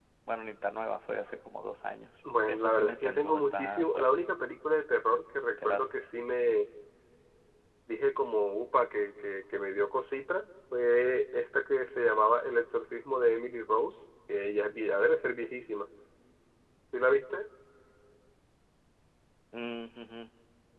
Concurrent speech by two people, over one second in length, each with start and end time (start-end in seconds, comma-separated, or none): 2.5-4.1